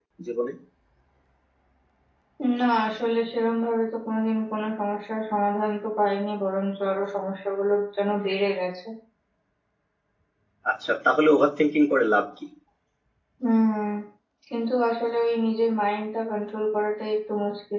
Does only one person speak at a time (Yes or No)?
Yes